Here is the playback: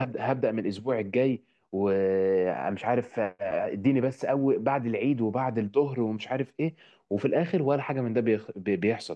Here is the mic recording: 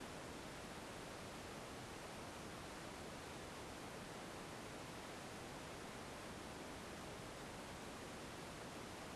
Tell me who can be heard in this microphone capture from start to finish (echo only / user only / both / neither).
neither